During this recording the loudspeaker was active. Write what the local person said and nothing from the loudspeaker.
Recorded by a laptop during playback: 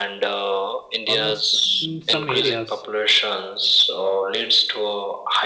almost in some areas.

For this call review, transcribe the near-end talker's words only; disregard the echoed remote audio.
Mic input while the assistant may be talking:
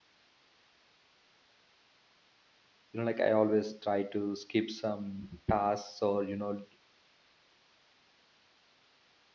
you know, like I always try to skip some tasks or you know,

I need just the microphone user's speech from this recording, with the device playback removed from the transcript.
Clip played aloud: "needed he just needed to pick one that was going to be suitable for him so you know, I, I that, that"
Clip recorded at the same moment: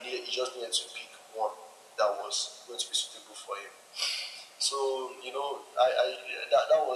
none

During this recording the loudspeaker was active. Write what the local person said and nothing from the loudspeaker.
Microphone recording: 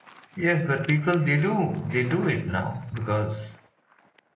yes, but people they do they do it now because,

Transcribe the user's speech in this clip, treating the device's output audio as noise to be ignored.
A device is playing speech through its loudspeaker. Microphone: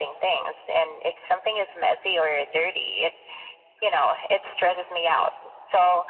none

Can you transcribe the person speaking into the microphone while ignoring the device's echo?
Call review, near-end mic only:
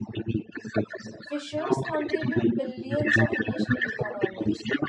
Fishers contribute billions of national economies.

